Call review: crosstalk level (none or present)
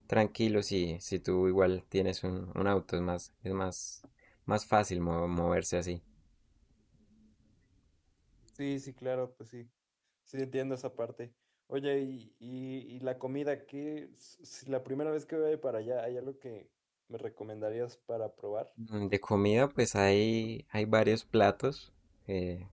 none